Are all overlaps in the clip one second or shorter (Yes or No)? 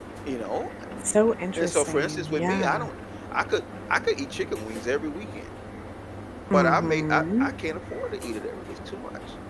No